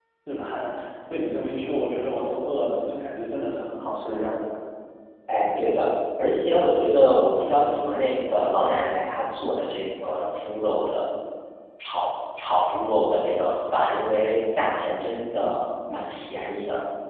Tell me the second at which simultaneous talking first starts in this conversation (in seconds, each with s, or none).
none